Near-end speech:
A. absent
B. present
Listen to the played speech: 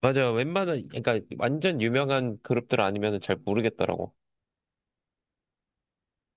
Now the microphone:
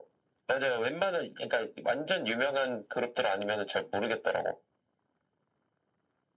A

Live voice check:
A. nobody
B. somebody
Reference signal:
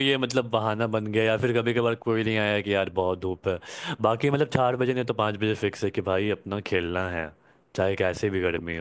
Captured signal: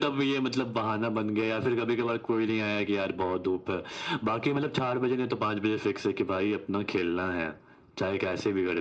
A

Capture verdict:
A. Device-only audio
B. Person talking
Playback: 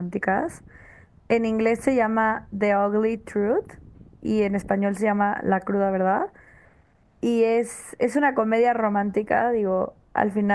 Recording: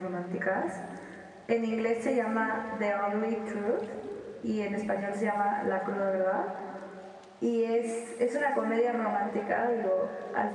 A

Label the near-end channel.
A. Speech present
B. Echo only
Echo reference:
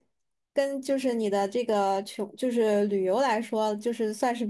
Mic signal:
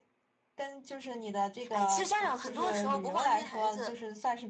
A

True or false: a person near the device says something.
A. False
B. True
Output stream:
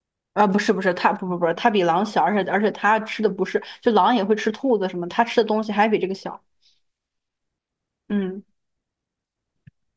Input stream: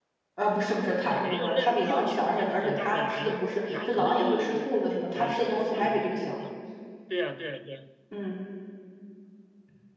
B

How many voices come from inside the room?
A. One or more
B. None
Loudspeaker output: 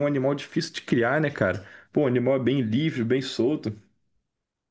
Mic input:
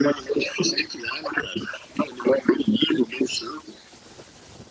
B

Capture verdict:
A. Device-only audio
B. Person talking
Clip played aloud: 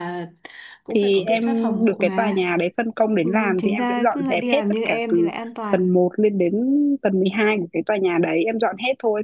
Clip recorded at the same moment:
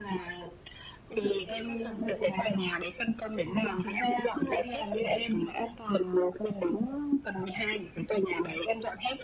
A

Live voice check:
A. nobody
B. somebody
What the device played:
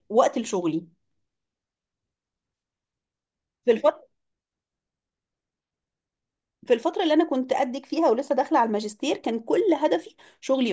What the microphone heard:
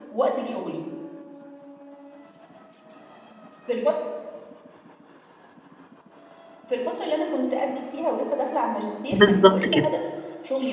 B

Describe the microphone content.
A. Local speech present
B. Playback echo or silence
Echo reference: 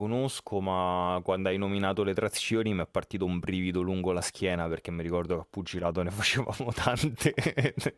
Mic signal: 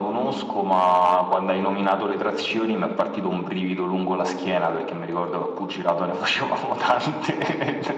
B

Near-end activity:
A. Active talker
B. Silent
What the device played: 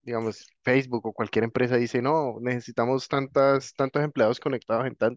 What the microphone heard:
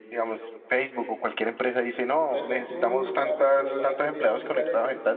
A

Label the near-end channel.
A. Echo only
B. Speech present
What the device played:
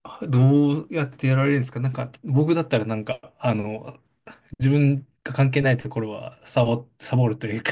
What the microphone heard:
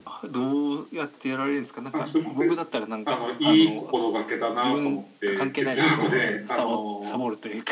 B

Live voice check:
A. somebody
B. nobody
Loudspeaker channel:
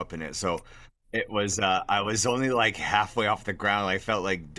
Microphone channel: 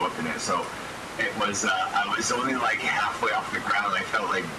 B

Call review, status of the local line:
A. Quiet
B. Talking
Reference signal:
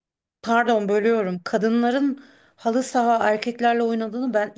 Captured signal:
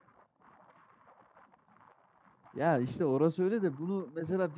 B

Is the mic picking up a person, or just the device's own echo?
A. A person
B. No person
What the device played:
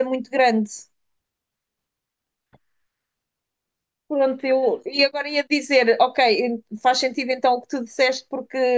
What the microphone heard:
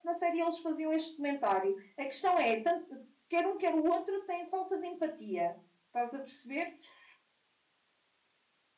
A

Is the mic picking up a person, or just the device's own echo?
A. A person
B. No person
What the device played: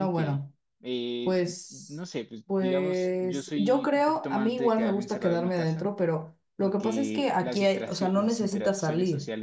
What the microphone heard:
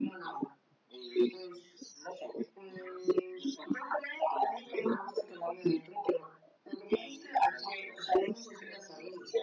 B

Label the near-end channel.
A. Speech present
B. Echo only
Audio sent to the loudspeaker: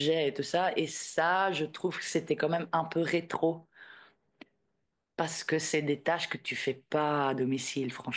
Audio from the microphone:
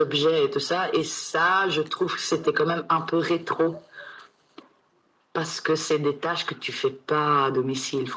B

